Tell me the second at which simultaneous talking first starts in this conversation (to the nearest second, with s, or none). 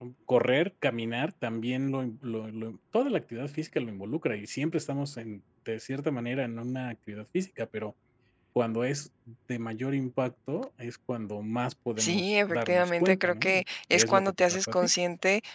12 s